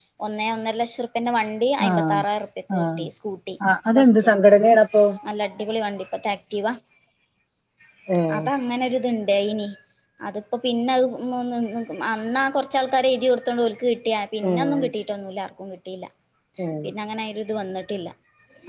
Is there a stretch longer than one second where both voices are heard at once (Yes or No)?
No